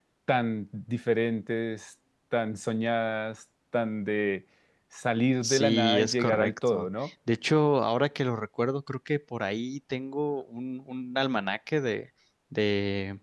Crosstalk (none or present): present